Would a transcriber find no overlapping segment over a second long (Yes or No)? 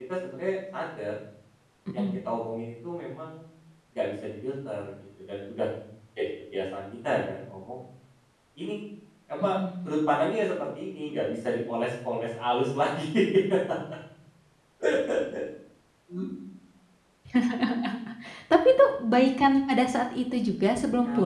Yes